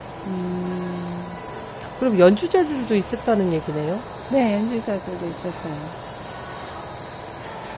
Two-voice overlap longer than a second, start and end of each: none

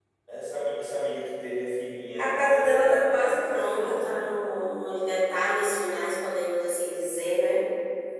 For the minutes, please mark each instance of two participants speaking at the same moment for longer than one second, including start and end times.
2.2-4.1

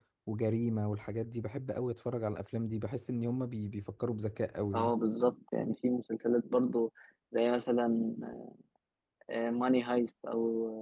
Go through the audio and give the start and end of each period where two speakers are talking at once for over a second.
none

